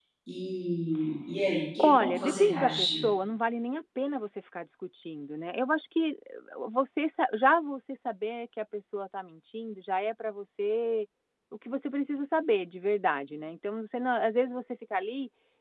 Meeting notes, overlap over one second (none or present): present